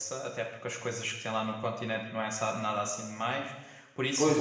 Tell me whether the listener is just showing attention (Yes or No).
No